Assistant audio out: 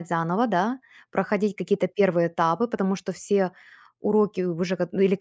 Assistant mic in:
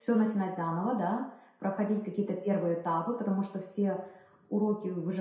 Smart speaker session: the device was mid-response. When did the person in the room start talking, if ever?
none

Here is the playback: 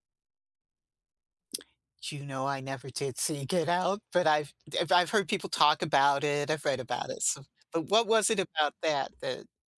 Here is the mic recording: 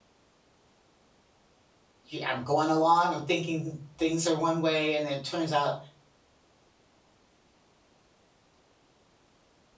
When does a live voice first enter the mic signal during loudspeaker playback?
2.1 s

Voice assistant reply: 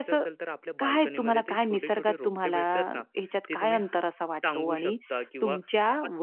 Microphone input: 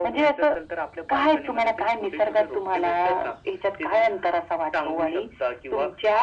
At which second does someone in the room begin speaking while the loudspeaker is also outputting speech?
none

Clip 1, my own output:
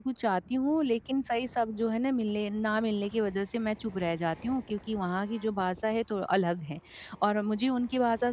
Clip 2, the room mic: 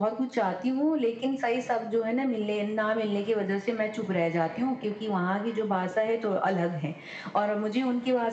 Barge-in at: none

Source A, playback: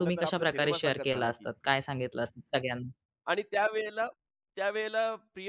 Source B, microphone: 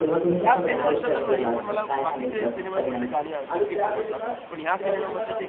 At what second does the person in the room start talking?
0.4 s

